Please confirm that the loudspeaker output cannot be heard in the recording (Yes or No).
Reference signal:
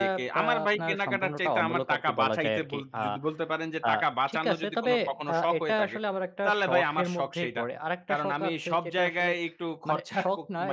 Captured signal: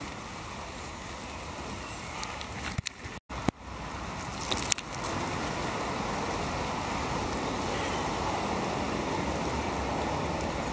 Yes